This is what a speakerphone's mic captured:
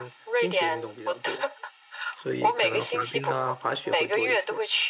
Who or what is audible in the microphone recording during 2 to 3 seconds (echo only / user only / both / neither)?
both